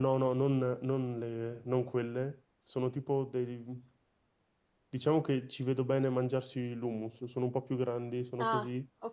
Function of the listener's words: taking over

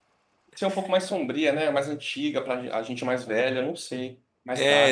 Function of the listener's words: taking over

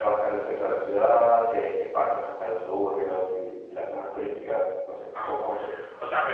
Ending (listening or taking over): taking over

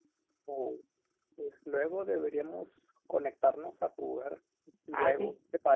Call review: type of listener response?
taking over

